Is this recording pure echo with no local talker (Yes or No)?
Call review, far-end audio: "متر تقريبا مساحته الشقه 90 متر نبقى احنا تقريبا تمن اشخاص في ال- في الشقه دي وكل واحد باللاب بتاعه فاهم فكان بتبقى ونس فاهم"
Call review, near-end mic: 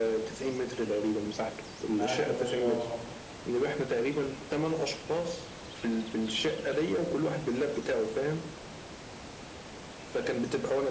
No